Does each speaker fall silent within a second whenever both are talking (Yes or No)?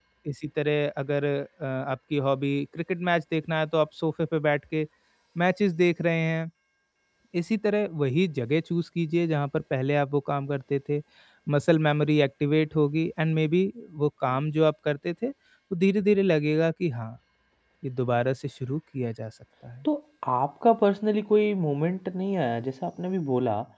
Yes